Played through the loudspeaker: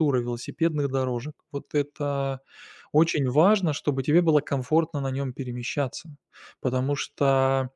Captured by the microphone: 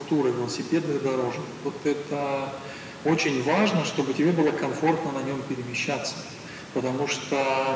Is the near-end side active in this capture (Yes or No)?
No